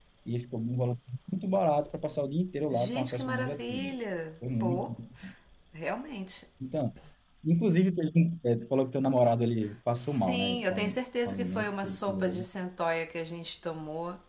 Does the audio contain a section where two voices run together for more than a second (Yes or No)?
Yes